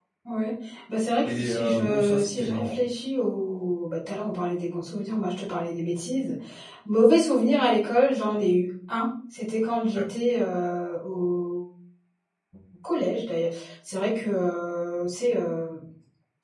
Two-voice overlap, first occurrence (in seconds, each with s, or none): 1.2 s